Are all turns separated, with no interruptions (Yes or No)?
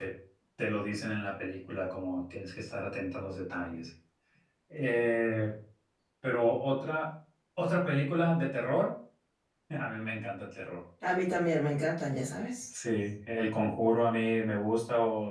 Yes